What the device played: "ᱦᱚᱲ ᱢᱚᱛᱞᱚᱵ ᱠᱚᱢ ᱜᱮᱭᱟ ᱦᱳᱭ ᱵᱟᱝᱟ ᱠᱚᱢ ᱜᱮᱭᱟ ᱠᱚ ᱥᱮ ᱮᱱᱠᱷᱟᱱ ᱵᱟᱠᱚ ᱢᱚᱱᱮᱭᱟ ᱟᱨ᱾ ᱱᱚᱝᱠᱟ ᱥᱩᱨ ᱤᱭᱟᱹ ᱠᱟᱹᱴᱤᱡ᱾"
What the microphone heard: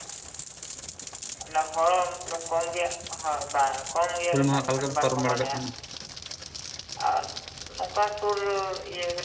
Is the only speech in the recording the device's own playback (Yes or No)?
No